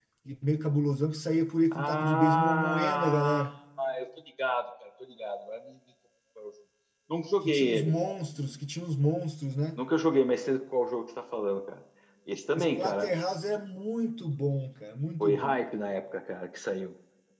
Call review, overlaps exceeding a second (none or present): present